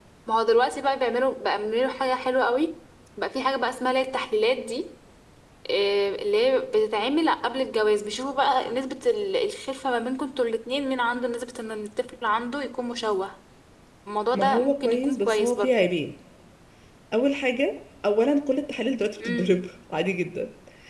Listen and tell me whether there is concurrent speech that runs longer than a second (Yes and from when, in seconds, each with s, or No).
Yes, from 14.3 s